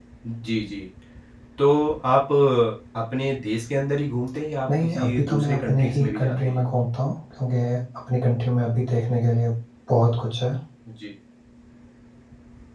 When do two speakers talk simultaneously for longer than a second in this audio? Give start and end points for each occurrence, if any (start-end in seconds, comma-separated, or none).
4.8-6.7